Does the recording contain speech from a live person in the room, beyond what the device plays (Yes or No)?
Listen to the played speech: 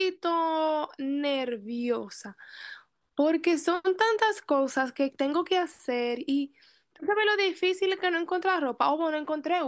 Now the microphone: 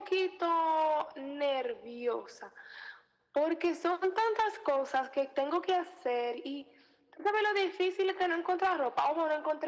No